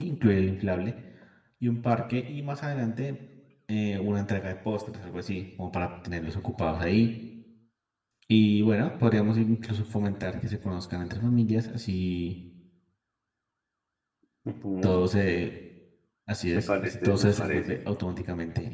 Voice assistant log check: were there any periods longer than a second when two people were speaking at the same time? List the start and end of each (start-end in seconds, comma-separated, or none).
16.5-17.8